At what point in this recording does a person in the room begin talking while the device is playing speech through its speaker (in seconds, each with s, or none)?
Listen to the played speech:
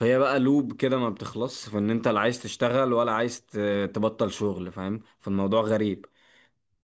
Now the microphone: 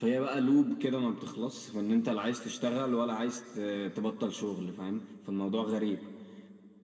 none